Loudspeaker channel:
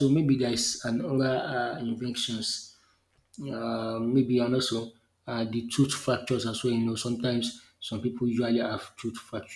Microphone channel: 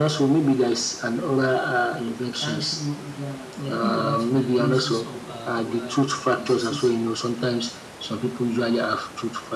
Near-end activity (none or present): present